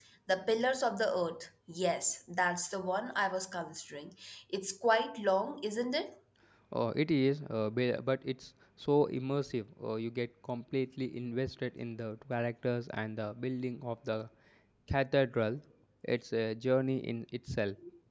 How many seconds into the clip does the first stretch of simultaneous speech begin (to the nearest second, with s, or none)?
none